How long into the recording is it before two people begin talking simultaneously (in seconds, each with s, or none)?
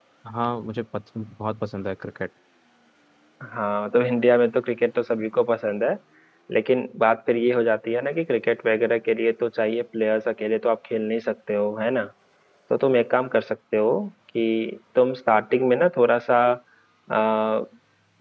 none